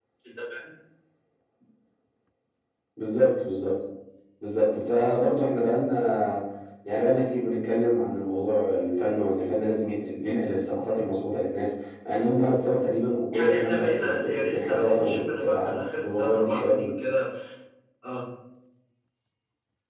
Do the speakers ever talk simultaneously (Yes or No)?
Yes